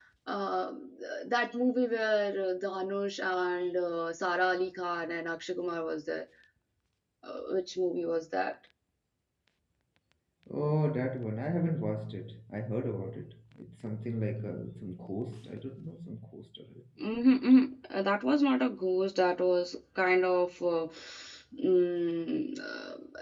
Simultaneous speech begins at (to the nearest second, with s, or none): none